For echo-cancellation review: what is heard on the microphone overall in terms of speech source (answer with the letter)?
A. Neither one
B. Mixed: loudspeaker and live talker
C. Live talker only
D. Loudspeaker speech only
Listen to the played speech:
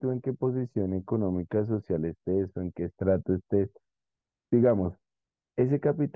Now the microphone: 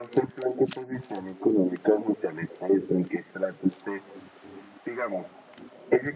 D